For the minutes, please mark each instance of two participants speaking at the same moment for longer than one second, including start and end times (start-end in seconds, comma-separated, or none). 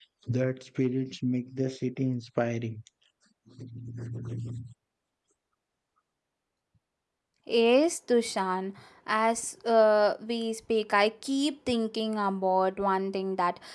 none